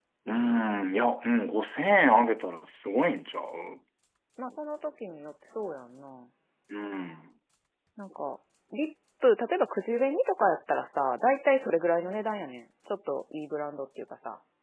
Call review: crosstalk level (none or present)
none